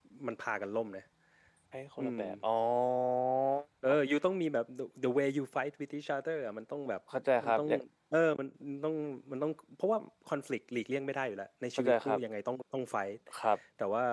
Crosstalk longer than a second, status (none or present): none